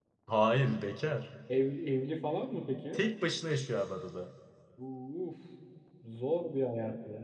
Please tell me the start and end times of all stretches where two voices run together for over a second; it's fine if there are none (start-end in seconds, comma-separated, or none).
none